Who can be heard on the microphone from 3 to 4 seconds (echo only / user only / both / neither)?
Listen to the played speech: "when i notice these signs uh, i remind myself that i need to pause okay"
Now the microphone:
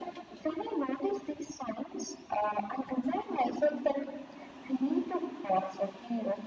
echo only